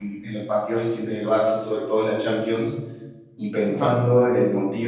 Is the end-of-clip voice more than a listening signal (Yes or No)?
No